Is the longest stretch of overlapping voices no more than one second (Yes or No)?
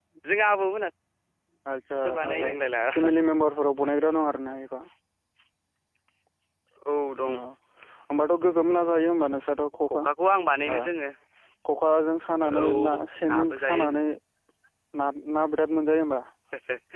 No